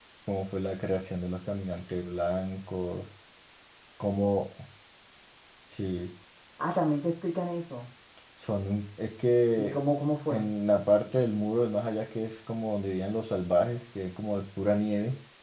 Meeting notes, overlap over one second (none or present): none